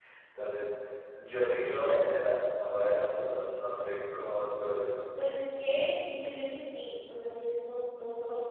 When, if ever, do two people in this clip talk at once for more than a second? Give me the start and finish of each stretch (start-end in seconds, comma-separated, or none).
none